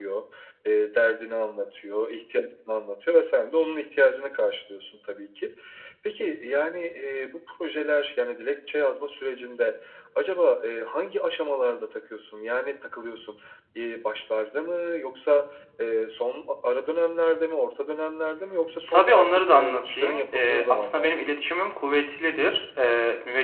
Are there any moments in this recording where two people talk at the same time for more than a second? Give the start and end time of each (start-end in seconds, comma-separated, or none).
18.9-21.4